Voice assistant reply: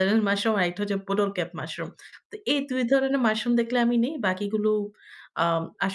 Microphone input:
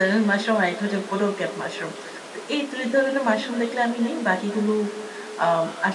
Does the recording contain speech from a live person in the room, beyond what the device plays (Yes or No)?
No